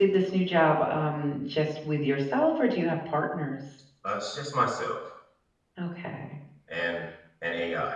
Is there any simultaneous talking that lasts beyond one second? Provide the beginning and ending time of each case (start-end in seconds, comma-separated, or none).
none